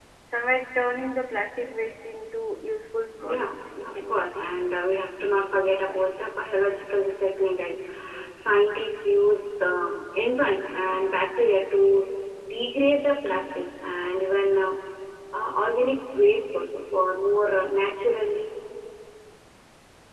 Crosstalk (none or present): present